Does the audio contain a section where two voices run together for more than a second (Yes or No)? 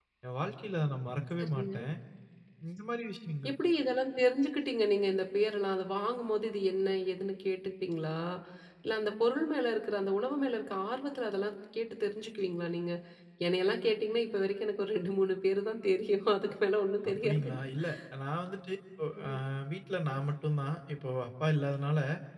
No